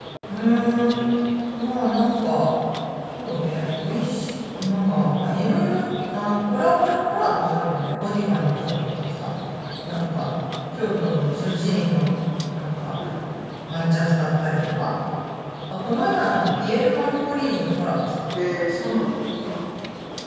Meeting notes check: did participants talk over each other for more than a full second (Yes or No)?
No